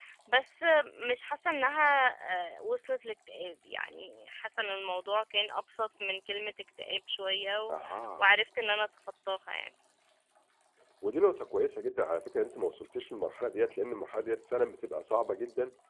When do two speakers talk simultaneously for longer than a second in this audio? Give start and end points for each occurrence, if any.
none

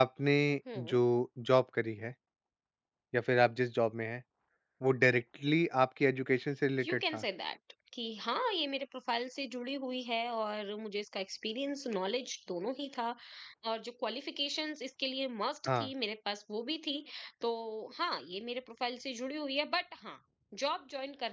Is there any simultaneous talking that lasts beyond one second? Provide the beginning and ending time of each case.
none

